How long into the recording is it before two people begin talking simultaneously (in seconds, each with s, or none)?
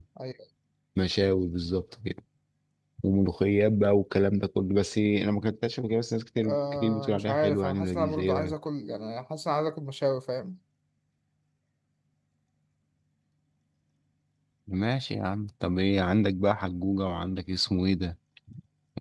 6.4 s